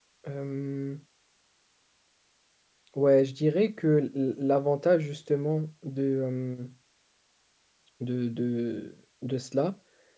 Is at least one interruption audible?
No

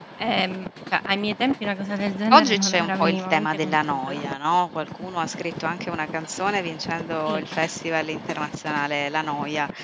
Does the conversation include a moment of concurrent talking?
Yes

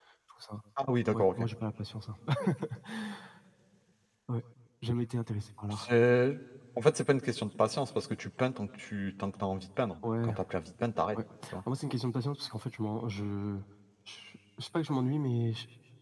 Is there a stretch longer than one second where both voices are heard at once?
No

